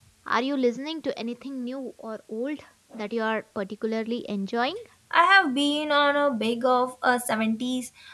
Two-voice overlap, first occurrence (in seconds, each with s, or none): none